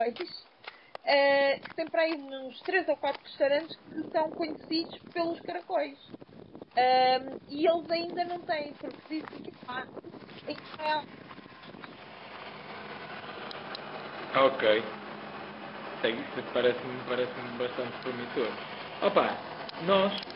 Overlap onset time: none

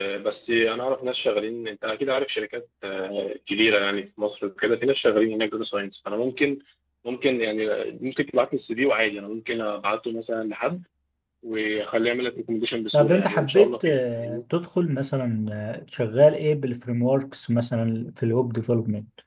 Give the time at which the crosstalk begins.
13 s

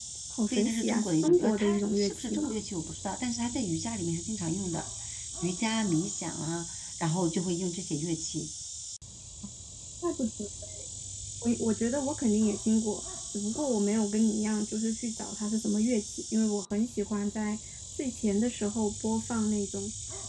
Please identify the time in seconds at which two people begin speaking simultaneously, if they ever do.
1 s

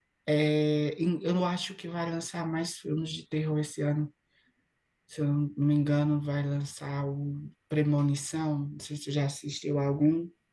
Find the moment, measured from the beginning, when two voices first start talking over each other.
none

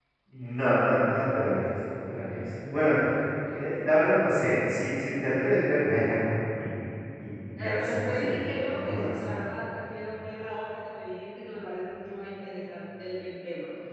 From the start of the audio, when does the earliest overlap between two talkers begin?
8 s

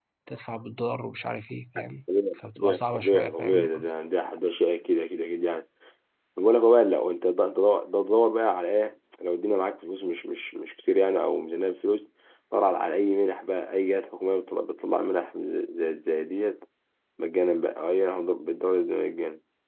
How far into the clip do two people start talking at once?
2 s

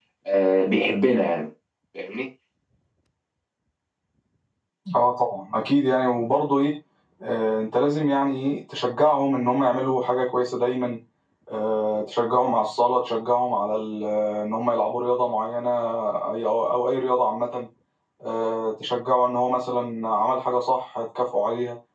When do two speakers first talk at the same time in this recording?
none

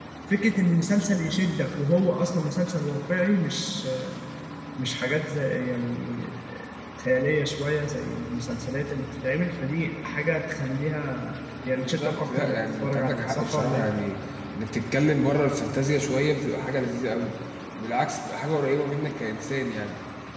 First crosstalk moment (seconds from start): 12 s

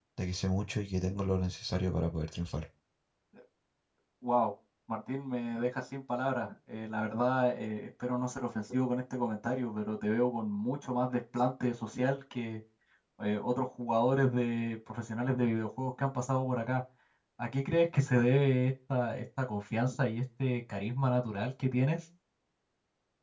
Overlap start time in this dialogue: none

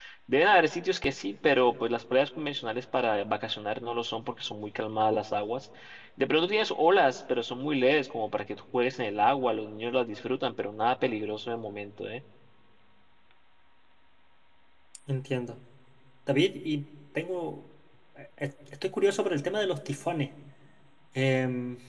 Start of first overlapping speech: none

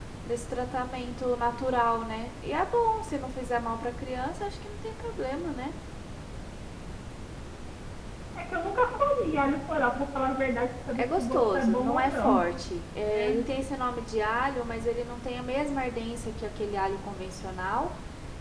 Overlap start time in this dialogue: 11 s

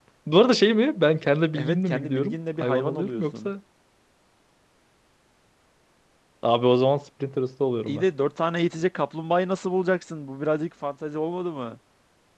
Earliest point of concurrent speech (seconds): 2 s

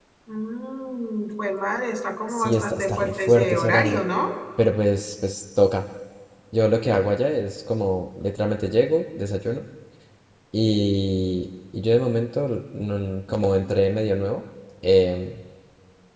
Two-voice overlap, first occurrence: 2 s

